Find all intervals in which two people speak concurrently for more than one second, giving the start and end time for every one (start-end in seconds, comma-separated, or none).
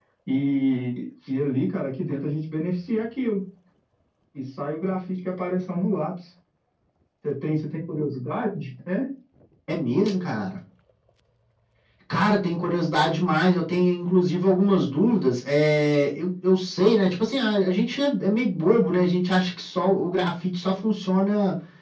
none